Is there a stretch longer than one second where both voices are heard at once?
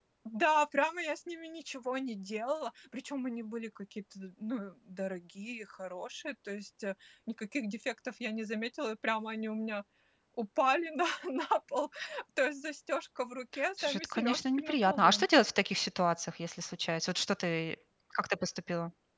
Yes, from 13.8 s

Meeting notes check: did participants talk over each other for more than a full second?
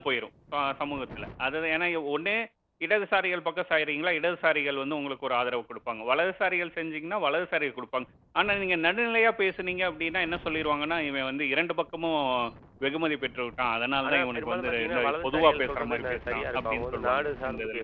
Yes, from 14.0 s

